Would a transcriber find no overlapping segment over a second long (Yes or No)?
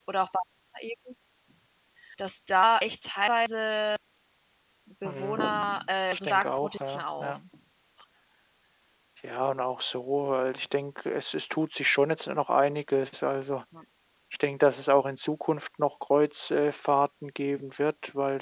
No